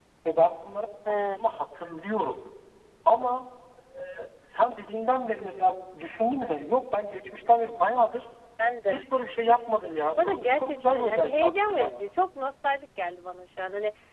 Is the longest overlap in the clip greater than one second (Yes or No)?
Yes